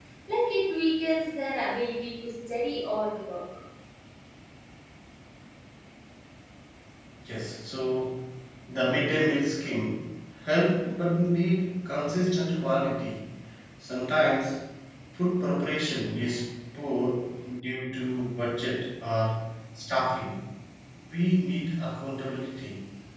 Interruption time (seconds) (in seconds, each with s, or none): none